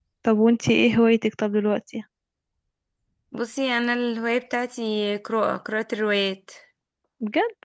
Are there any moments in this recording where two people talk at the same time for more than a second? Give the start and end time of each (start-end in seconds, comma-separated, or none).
none